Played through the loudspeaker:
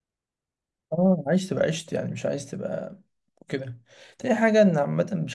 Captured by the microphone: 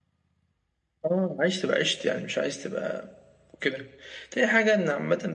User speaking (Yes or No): No